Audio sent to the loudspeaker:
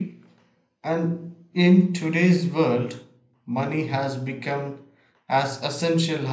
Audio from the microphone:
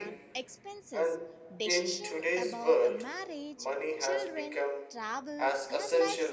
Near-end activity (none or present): present